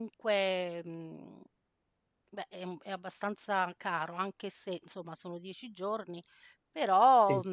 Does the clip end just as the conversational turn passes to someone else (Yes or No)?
No